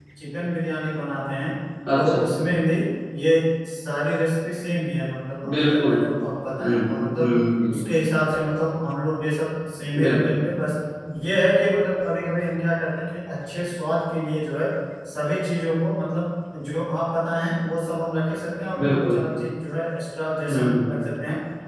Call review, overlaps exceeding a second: none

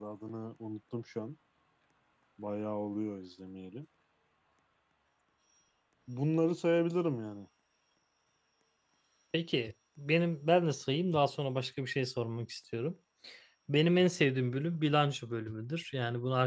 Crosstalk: none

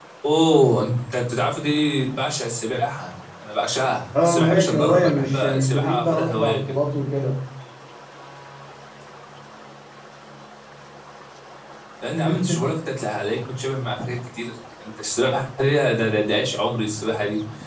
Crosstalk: present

